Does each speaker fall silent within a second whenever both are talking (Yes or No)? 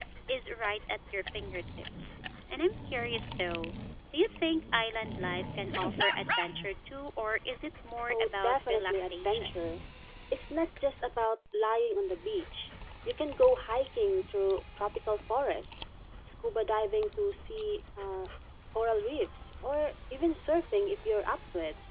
No